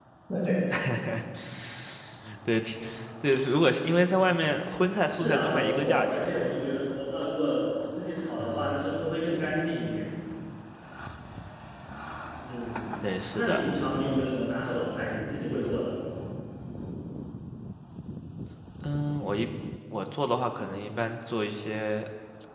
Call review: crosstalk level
present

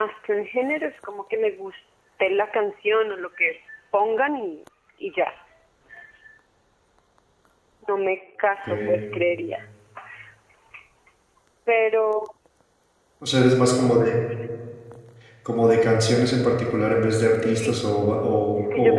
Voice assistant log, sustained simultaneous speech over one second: none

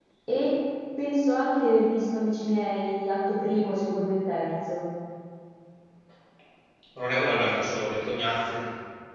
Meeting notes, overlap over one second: none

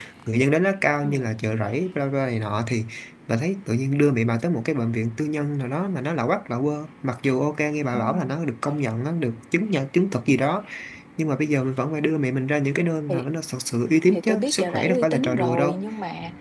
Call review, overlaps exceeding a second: present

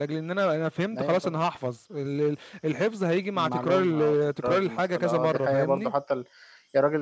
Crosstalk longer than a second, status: present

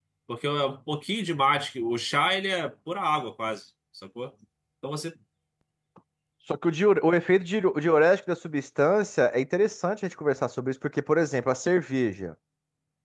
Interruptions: none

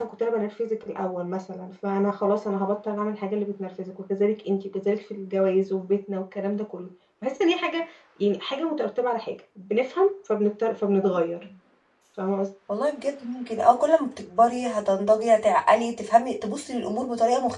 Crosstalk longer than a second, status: none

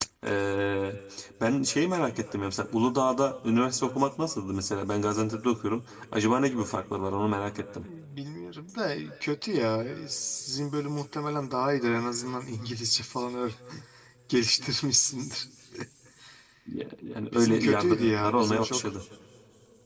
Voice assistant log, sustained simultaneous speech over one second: present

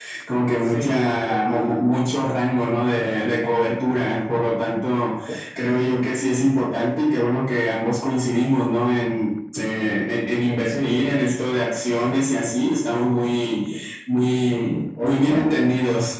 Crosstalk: present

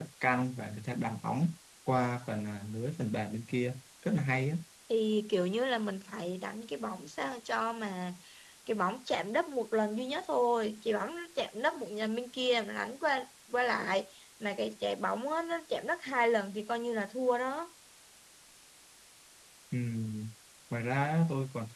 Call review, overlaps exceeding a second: none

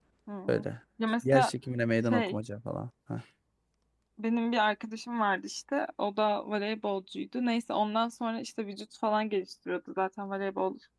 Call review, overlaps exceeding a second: none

